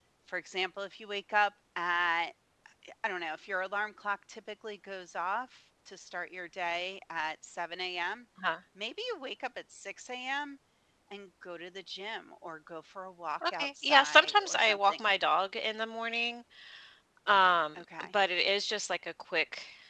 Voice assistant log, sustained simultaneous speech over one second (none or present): present